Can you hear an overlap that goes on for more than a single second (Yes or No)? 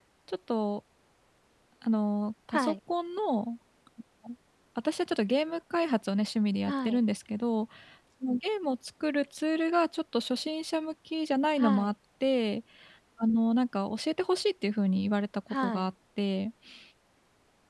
No